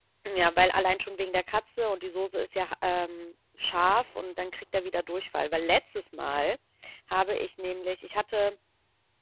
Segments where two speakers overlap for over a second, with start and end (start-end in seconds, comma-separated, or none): none